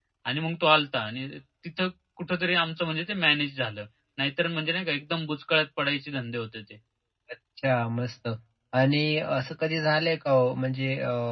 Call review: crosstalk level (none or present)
none